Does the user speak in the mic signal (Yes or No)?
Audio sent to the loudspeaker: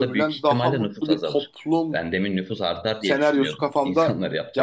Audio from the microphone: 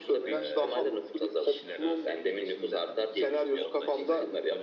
Yes